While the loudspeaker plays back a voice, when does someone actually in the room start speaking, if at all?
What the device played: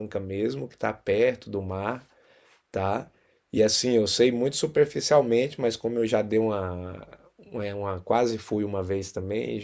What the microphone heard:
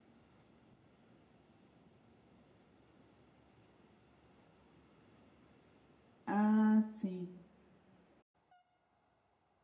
6 s

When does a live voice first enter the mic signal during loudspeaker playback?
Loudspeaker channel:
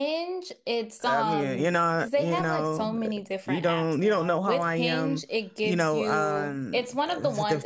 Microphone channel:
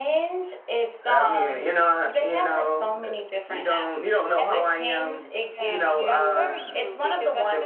4 s

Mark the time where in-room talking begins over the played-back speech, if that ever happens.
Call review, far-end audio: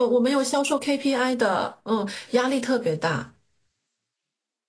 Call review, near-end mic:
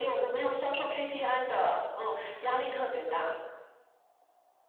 none

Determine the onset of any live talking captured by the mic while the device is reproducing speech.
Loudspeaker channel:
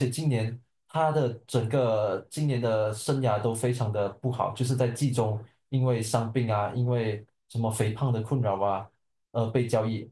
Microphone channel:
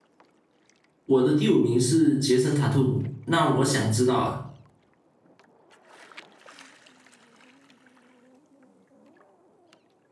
1 s

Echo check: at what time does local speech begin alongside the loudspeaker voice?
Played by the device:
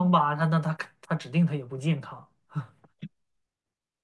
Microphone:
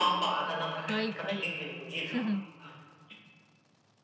1 s

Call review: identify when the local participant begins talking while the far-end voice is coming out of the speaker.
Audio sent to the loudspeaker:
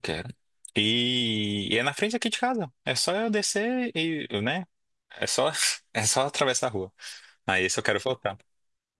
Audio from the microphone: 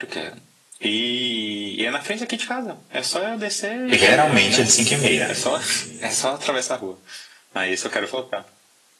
4 s

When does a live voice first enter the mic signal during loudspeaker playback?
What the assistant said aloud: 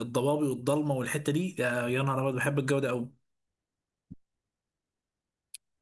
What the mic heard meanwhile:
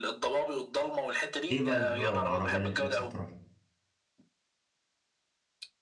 1 s

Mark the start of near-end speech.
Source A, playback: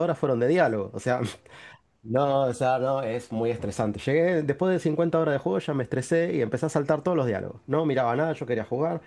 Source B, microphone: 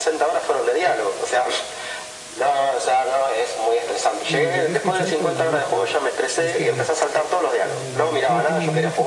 4 s

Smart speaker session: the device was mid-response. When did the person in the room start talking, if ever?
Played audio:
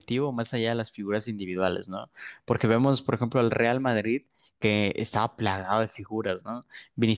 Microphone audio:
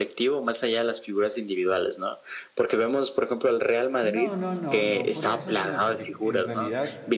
4 s

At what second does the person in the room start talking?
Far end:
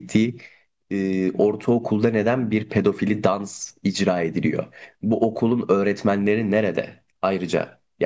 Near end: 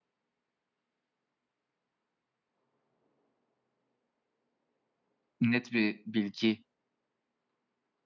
5 s

